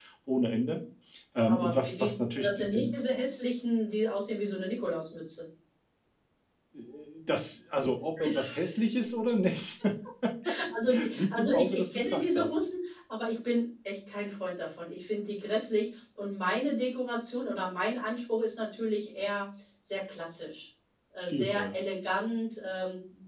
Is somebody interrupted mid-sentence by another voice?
Yes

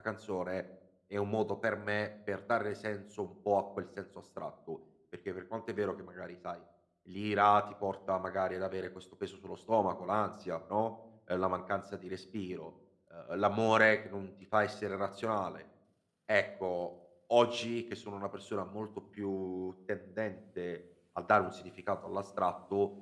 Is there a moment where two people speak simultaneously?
No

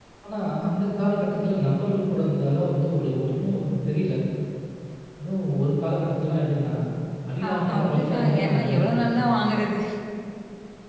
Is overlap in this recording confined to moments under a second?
No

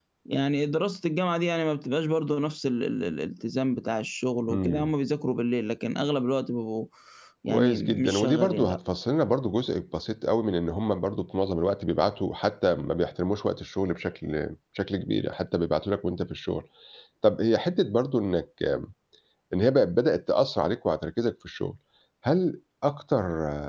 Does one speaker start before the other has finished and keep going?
Yes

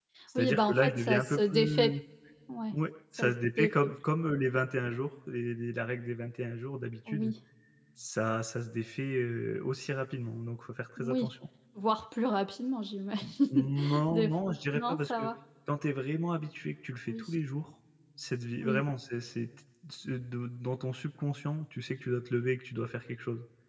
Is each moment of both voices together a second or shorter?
No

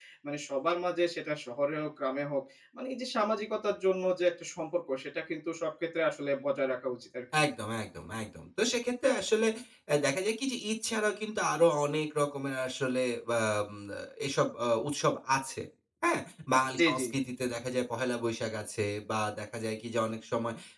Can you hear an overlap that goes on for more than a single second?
No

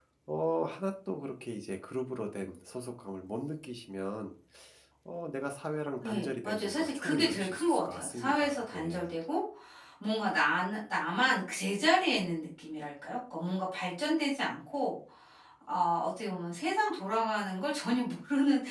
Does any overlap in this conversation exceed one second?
Yes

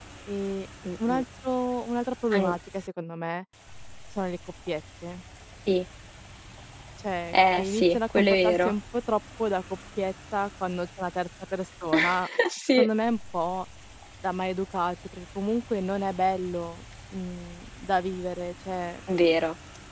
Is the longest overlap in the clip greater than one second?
Yes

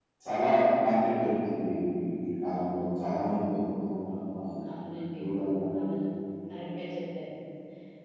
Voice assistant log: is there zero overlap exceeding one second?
Yes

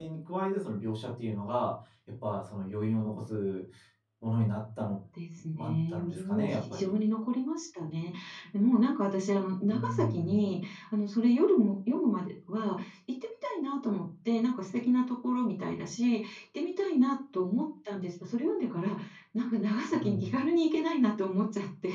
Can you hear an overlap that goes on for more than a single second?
Yes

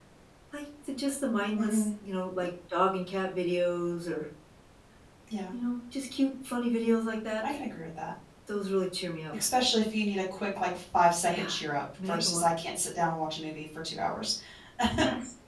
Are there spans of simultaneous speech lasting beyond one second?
No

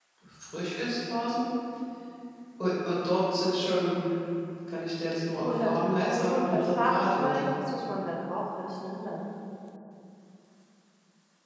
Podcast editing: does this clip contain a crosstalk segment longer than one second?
Yes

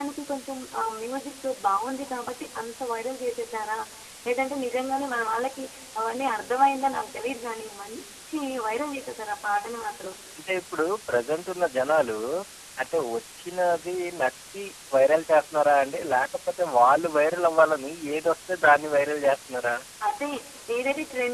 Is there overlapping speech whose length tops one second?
No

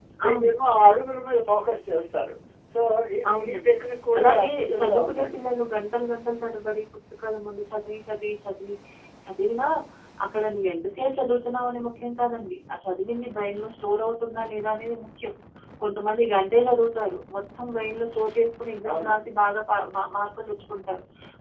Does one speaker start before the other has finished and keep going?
Yes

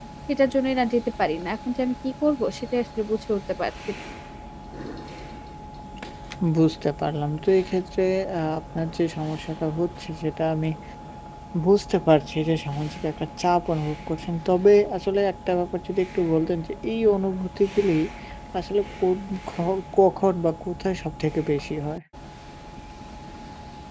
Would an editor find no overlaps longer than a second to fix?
Yes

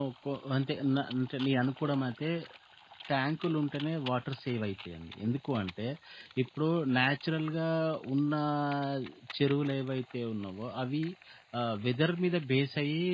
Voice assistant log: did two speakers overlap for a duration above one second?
No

